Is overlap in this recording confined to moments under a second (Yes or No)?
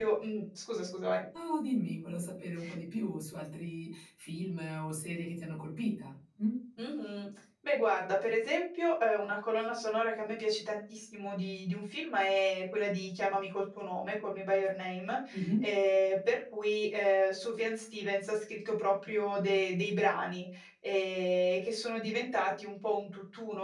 Yes